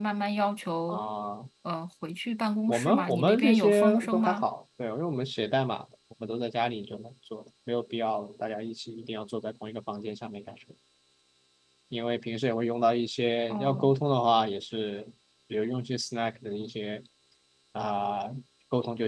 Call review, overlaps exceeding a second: present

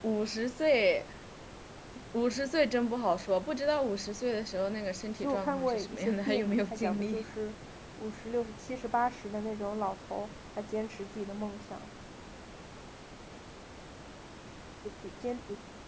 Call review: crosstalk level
present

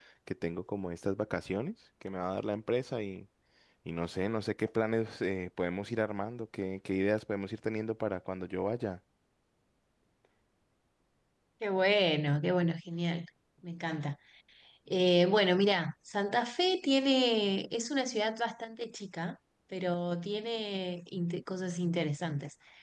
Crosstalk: none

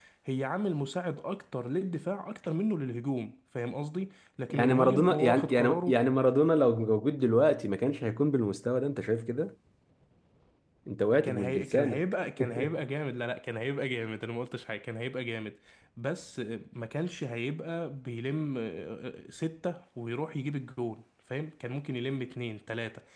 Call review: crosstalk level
present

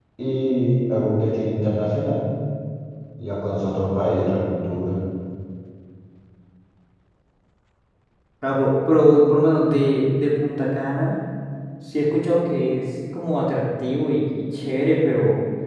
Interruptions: none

